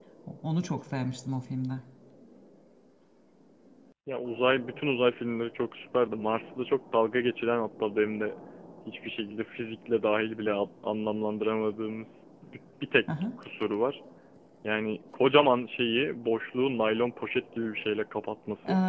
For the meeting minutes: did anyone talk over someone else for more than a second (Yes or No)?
No